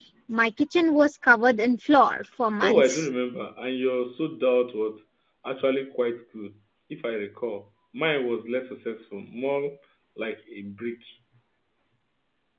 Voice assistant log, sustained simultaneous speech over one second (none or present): none